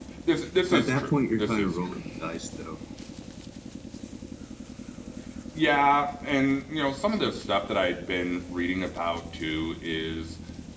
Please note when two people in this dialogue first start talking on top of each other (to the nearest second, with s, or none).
1 s